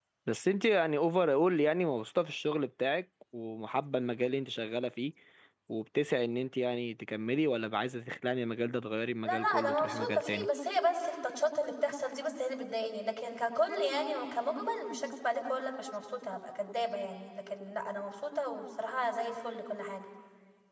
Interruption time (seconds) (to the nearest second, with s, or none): 9 s